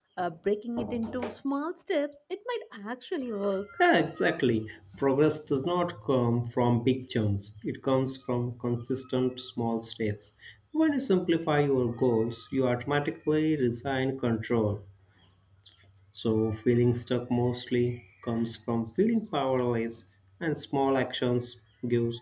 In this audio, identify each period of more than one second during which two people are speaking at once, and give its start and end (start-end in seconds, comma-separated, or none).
none